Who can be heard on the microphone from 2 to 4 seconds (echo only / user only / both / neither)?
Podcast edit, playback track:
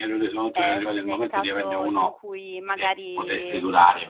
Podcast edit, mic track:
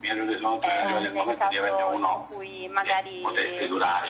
echo only